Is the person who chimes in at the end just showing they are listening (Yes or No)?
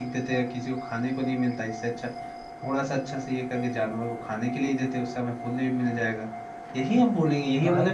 Yes